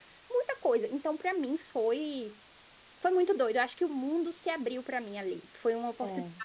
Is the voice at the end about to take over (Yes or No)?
No